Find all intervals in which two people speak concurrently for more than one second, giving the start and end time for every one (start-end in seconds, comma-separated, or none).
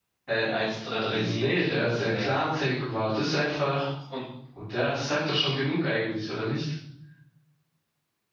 1.1-2.3